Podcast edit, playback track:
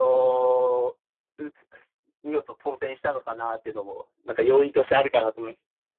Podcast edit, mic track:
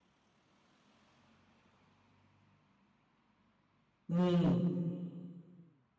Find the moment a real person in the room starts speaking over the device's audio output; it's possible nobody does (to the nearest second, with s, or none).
4 s